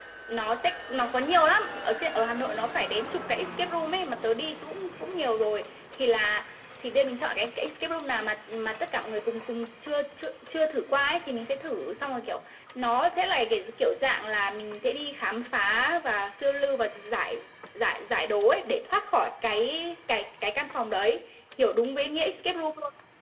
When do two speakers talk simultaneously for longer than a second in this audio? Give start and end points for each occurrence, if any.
none

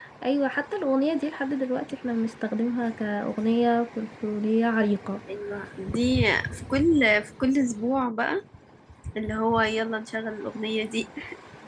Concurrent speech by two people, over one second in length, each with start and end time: none

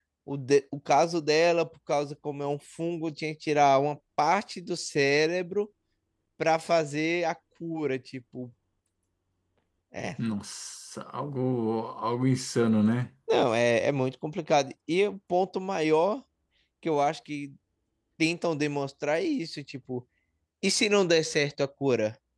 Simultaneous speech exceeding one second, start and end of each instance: none

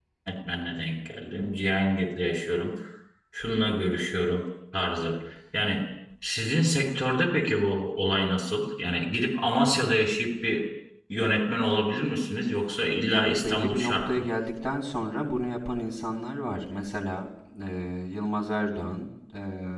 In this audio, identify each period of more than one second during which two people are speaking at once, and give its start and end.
12.9-14.3

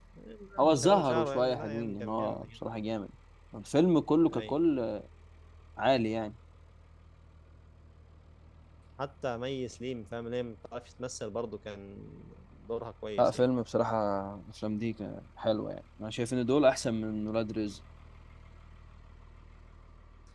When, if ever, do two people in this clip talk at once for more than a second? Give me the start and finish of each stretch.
0.6-2.6

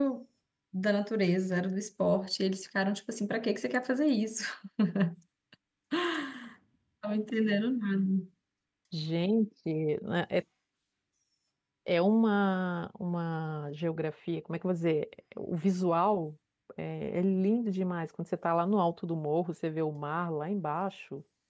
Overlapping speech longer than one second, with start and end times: none

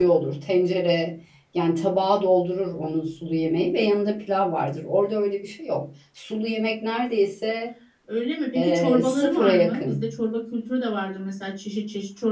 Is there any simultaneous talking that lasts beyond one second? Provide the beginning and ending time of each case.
8.6-10.1

